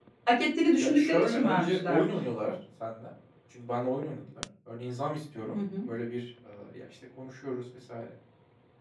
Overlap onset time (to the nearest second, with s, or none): 1 s